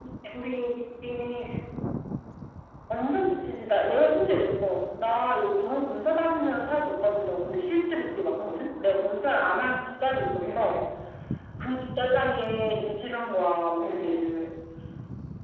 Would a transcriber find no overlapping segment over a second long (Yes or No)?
Yes